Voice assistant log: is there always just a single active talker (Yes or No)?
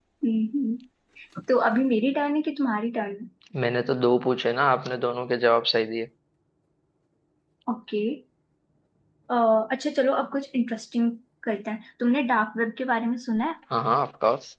Yes